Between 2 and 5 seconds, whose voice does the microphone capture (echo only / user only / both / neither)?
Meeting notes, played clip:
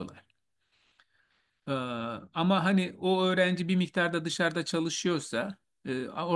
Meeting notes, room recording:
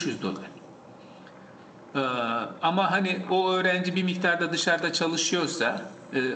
echo only